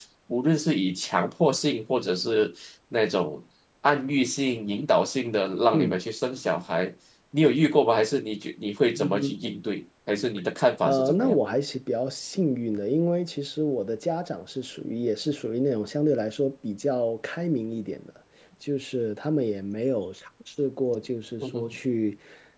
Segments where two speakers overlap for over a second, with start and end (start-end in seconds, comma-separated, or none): none